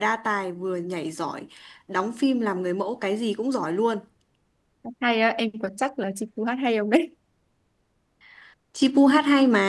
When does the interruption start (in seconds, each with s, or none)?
none